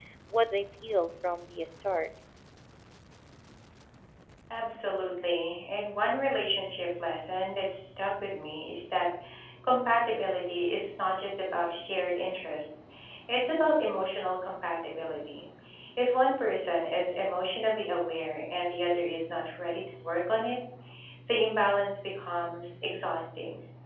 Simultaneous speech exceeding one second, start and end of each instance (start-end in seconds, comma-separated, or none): none